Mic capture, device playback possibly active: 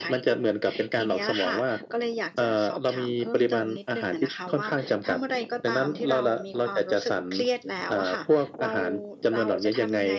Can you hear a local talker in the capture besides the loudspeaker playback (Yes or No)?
No